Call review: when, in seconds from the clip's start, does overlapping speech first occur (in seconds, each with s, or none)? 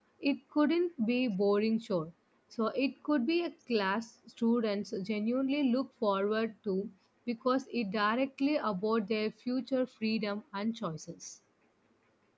none